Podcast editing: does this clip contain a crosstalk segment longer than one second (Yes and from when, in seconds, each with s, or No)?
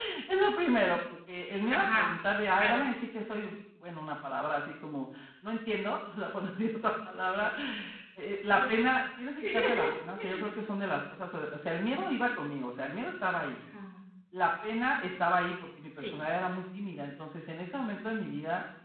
No